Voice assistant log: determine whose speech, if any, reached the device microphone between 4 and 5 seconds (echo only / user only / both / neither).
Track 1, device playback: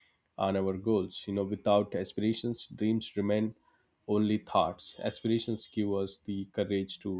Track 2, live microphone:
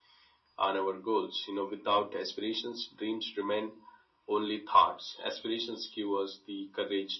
echo only